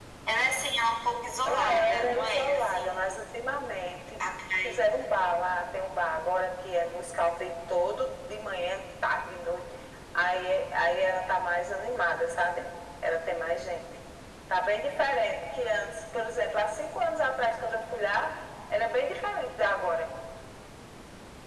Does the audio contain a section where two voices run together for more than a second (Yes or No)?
Yes